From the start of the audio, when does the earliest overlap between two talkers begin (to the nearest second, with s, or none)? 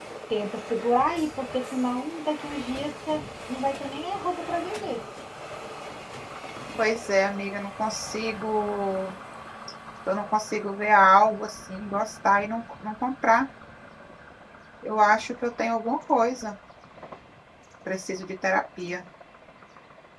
none